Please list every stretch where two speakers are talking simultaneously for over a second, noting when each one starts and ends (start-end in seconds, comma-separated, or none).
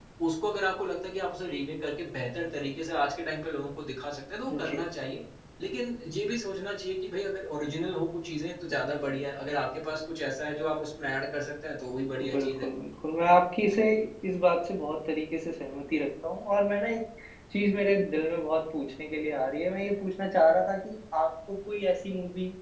none